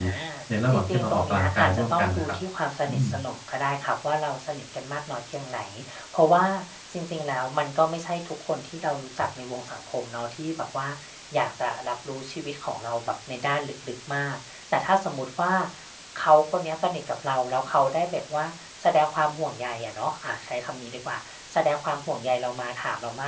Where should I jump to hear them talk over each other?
0.7 s

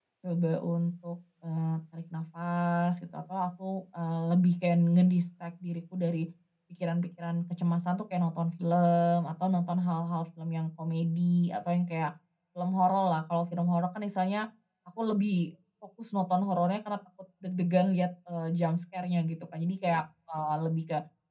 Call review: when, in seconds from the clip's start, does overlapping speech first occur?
none

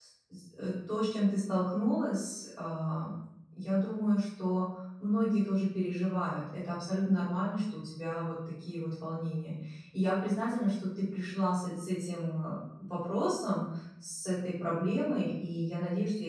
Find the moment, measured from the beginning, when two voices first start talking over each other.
none

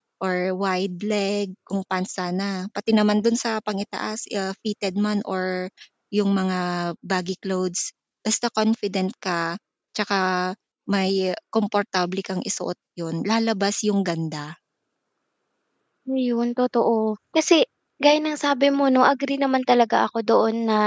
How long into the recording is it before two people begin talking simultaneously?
none

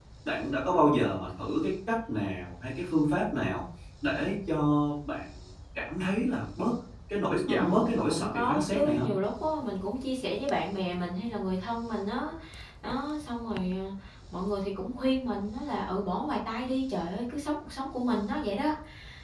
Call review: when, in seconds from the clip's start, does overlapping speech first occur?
7.5 s

